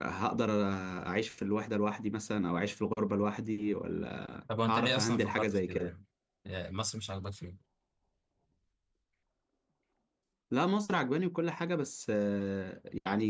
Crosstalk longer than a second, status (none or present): present